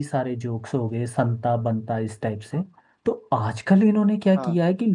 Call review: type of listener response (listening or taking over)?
listening